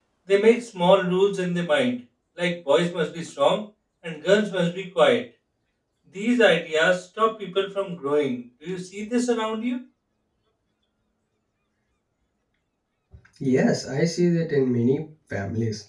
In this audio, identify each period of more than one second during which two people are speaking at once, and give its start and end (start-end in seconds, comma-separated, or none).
none